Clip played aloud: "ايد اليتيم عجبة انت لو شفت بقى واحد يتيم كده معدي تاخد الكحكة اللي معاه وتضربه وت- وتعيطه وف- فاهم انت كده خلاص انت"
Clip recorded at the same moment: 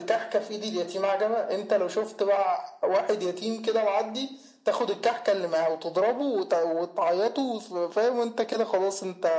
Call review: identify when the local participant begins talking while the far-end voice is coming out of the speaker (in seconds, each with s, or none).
none